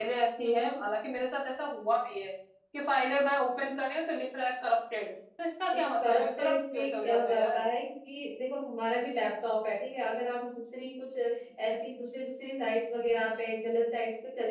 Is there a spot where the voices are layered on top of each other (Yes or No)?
Yes